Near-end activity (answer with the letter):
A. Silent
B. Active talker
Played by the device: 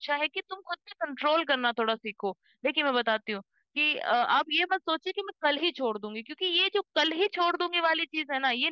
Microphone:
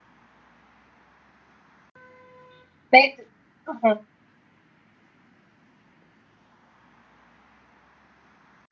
B